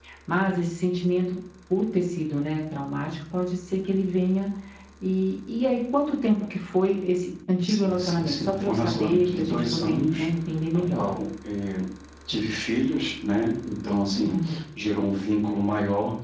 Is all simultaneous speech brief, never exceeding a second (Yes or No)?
No